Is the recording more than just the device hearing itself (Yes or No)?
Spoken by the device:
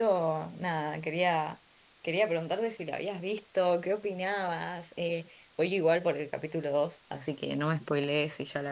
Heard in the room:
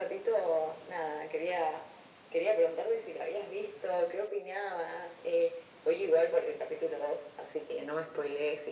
No